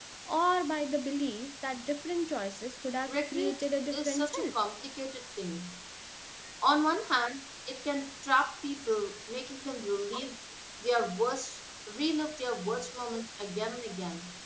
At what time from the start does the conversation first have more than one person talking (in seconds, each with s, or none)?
3.1 s